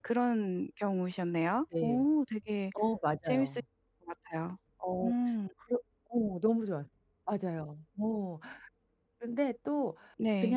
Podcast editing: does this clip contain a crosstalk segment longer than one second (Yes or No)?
No